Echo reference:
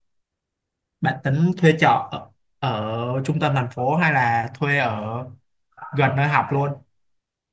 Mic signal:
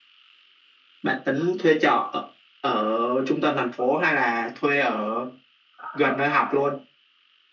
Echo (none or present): present